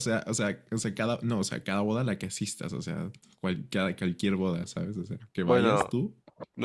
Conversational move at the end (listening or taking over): taking over